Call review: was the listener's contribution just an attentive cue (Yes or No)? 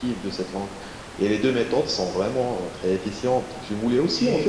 Yes